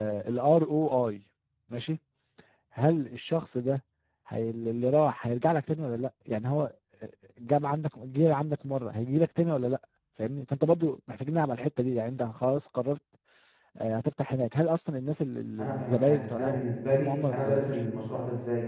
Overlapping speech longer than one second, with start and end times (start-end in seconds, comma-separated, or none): 15.6-17.7